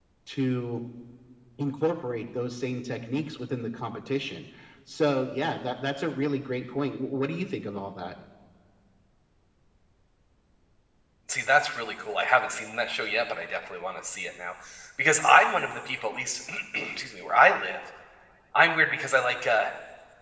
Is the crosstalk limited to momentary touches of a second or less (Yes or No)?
Yes